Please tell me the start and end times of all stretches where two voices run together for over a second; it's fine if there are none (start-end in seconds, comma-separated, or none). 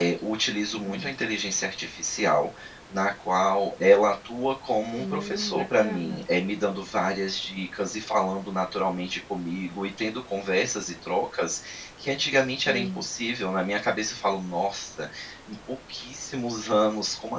5.0-6.2